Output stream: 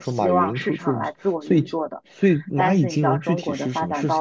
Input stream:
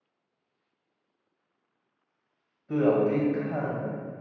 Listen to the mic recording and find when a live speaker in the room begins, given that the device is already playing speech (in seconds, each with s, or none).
2.7 s